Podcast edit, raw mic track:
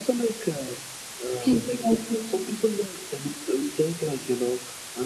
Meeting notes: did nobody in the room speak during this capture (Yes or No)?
No